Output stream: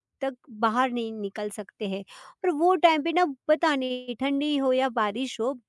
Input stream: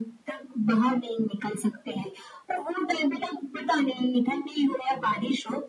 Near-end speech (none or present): none